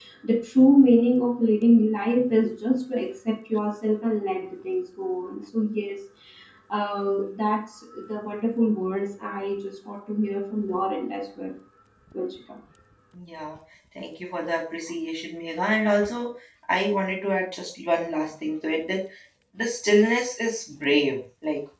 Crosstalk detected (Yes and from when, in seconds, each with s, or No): No